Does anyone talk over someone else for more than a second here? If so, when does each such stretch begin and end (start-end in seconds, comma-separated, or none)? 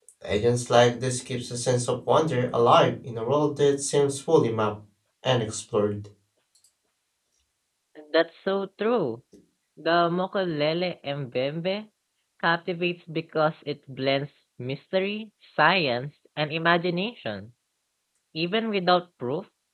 none